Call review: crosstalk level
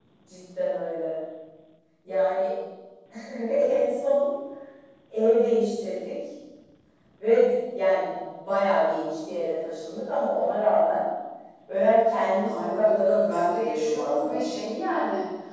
present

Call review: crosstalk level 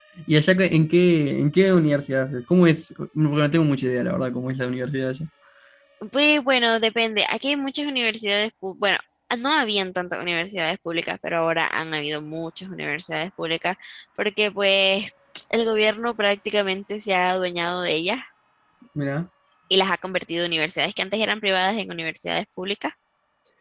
none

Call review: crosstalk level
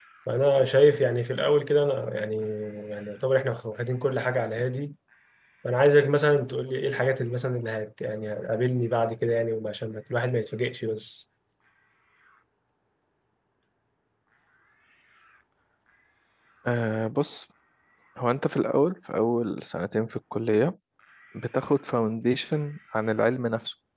none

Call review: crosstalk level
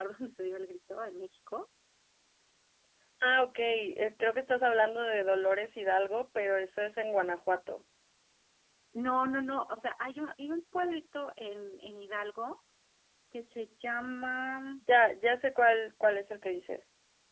none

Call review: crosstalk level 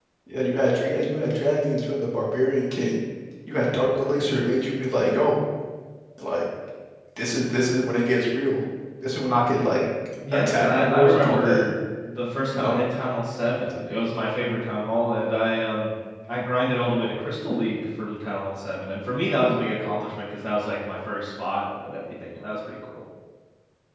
present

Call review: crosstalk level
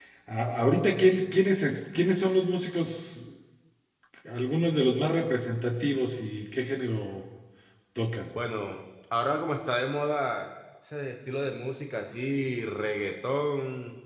none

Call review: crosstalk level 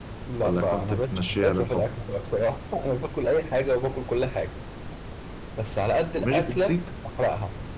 present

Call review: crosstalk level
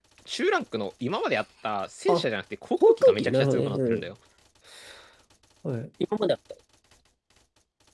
present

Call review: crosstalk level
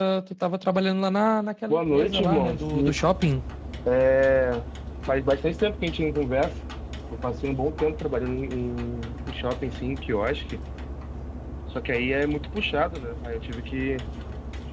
present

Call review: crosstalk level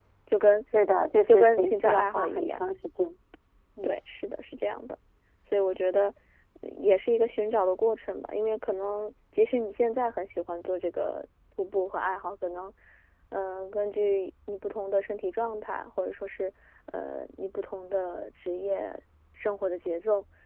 present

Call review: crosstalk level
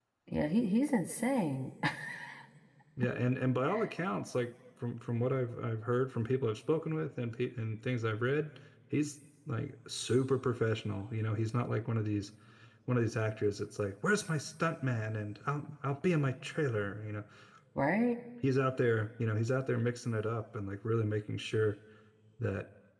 none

